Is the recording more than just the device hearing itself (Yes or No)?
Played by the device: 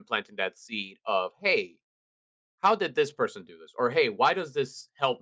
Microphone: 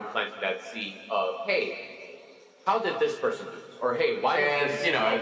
Yes